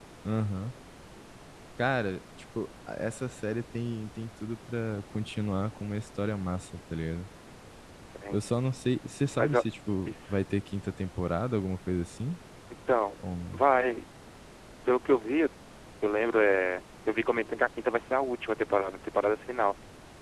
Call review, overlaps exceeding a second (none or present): none